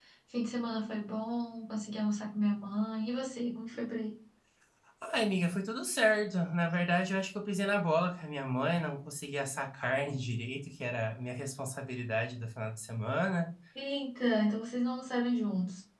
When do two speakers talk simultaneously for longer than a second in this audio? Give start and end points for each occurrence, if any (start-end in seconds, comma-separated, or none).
none